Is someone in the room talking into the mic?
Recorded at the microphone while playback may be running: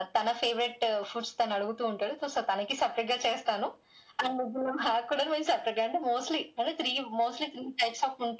No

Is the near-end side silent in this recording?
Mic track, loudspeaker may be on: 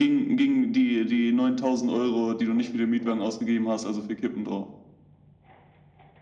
Yes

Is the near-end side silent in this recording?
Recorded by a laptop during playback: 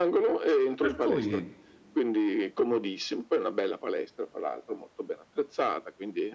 No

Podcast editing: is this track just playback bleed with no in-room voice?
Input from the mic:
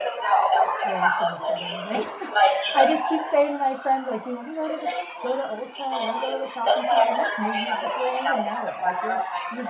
No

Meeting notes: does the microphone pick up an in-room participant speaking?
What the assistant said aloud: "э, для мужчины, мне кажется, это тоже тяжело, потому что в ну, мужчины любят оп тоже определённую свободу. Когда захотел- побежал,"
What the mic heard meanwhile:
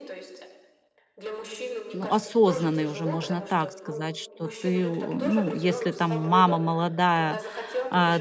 Yes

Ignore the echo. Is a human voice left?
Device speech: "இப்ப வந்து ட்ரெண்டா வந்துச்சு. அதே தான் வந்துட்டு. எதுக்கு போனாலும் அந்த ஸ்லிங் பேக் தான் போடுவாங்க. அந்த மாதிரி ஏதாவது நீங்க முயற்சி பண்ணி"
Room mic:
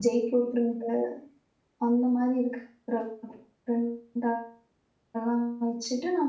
Yes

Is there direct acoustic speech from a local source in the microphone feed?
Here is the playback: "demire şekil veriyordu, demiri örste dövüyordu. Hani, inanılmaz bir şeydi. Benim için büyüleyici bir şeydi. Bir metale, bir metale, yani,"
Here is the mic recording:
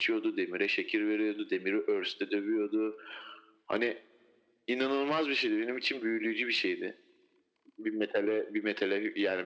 No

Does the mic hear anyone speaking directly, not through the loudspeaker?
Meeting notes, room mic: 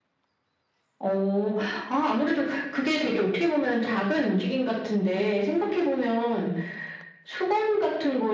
No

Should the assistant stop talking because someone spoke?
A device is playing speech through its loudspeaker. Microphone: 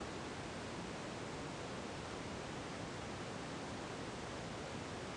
No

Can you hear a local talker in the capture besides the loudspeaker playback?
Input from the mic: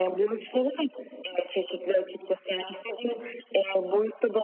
No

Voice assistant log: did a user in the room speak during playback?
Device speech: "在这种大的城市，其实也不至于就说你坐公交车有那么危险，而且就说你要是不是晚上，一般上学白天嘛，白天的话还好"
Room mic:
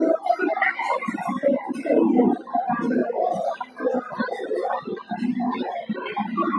No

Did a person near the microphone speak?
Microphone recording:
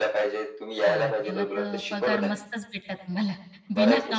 Yes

